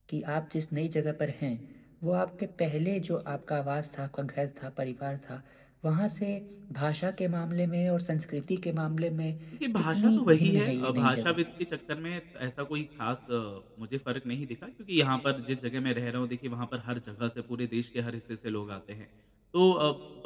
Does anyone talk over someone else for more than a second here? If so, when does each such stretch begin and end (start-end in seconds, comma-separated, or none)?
9.8-11.3